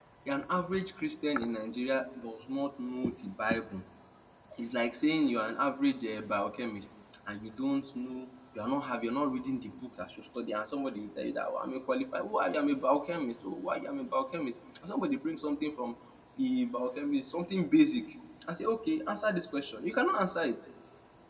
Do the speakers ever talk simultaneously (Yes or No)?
No